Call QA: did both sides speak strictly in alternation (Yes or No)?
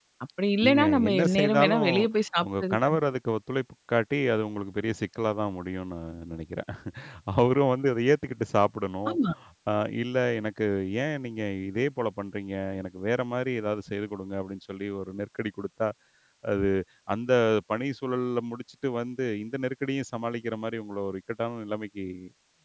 No